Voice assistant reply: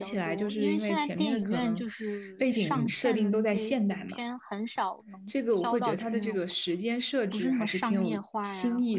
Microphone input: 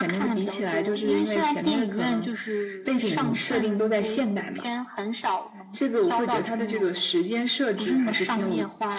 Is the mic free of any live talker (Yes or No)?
Yes